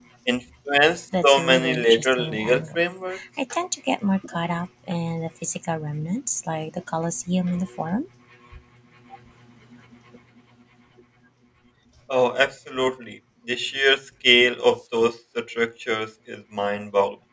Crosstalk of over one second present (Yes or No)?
Yes